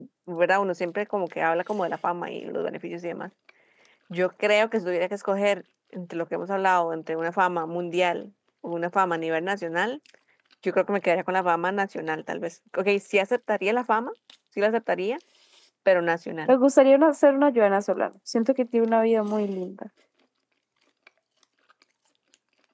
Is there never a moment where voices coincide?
Yes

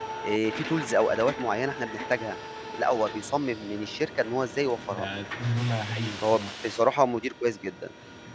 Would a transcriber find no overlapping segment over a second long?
Yes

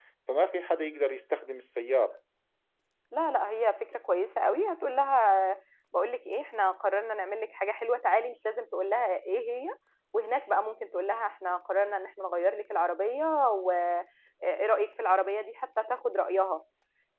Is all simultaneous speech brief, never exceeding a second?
Yes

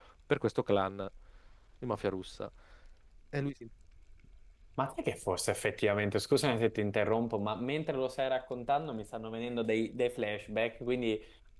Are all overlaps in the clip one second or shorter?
Yes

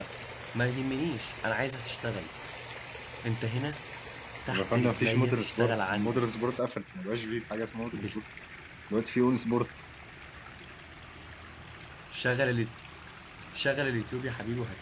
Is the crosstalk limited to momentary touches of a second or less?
No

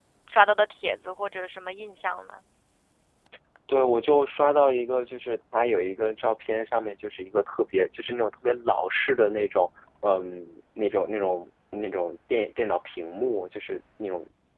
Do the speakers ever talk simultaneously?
No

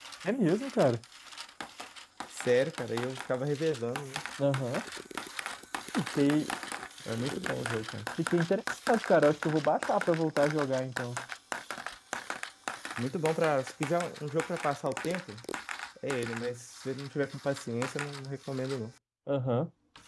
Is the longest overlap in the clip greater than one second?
No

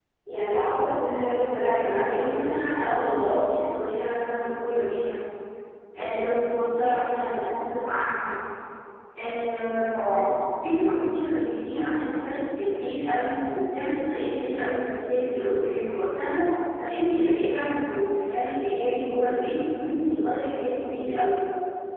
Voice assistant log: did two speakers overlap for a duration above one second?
Yes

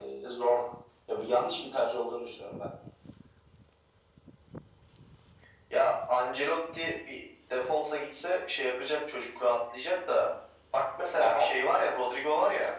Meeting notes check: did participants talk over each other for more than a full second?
No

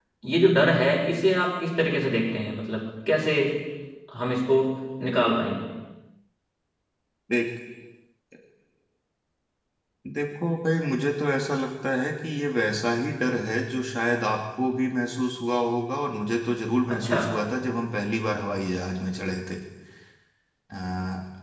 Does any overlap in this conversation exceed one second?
No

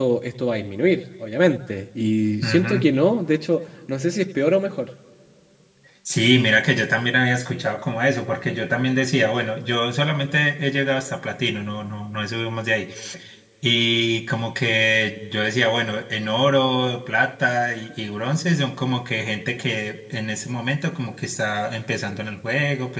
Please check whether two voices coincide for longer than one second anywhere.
No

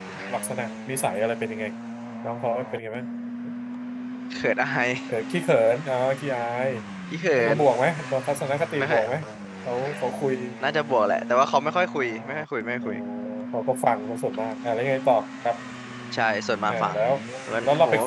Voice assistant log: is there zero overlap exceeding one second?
Yes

